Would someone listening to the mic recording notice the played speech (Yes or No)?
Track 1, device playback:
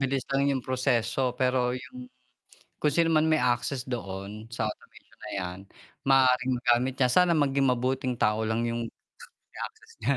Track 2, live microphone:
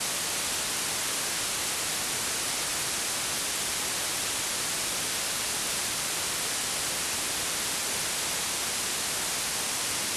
No